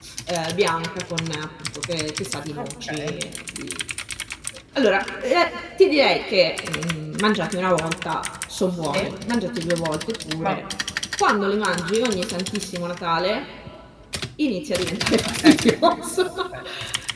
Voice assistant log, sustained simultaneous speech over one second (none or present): none